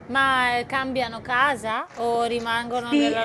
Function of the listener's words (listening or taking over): taking over